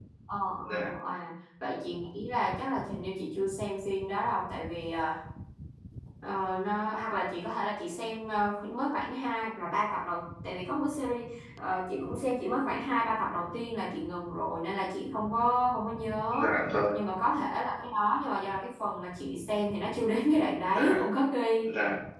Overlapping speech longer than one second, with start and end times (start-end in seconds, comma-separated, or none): none